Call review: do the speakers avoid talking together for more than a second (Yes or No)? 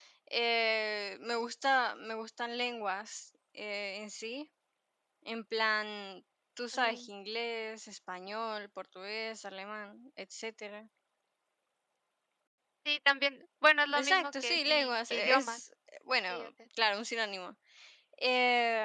No